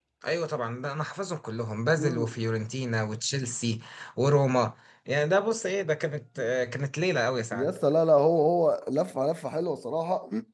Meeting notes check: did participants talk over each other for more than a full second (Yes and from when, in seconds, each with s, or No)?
No